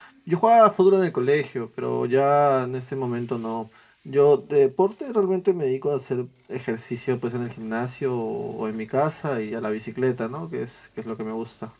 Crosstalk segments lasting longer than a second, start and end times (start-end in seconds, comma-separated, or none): none